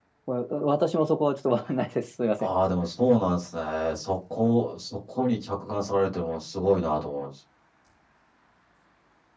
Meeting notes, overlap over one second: none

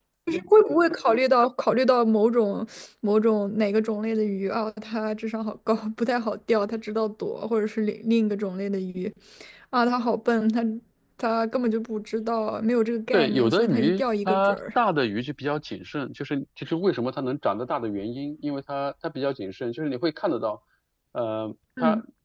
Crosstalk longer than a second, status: present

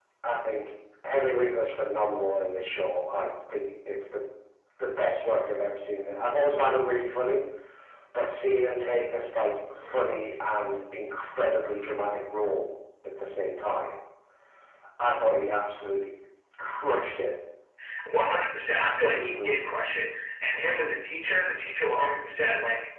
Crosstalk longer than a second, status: none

